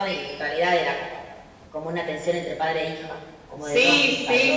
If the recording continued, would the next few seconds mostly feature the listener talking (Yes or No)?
Yes